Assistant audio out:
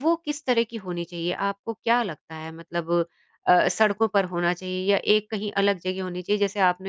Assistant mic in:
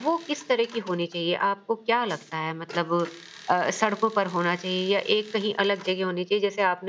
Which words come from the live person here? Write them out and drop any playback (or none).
none